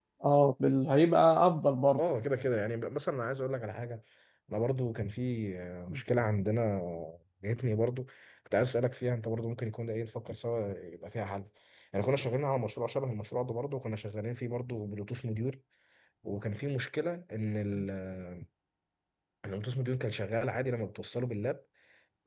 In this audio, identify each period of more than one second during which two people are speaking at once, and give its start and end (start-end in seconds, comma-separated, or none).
none